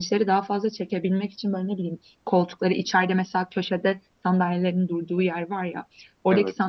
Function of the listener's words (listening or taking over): listening